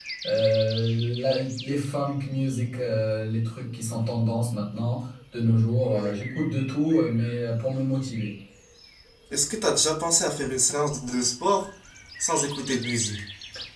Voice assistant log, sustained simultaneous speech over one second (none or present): none